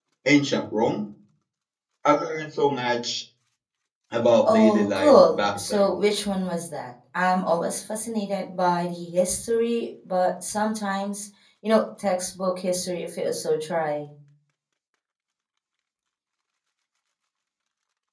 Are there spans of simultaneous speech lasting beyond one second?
Yes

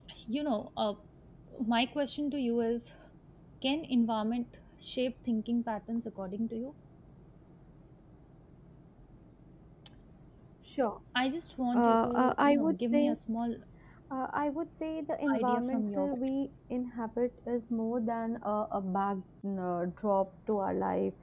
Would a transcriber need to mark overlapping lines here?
Yes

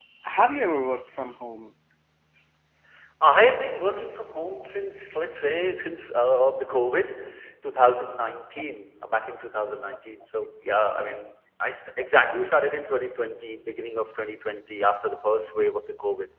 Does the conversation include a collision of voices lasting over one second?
No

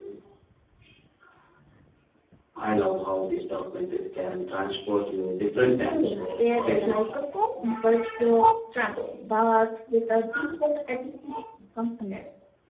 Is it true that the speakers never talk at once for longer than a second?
No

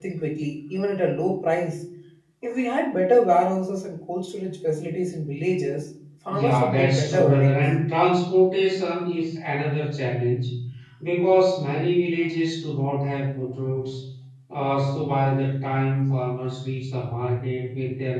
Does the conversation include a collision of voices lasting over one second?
Yes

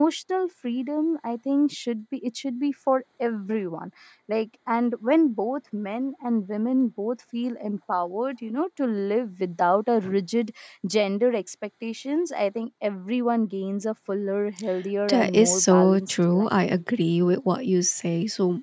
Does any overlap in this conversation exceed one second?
Yes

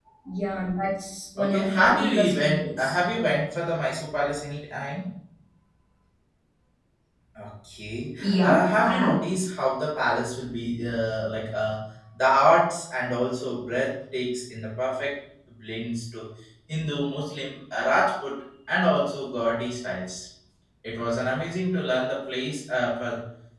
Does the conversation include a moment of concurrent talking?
Yes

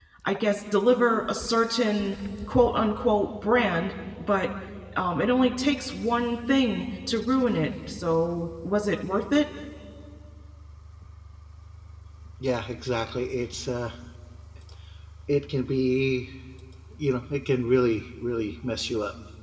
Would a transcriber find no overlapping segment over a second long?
Yes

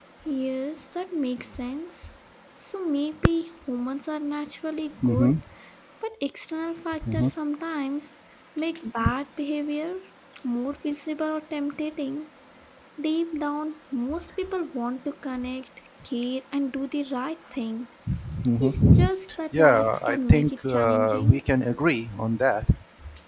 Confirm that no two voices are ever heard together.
No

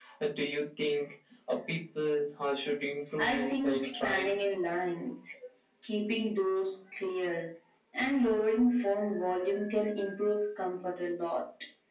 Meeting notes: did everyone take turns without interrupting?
No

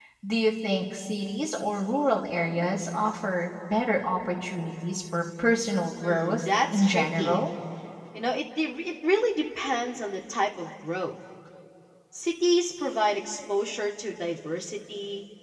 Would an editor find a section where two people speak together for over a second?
Yes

